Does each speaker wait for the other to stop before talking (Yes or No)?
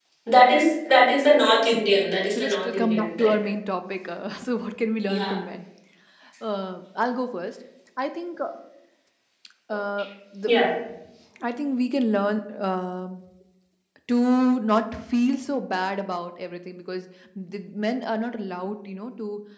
No